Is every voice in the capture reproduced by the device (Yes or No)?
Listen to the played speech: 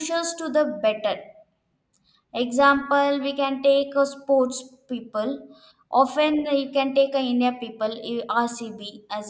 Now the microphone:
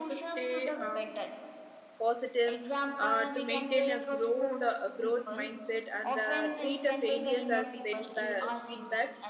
No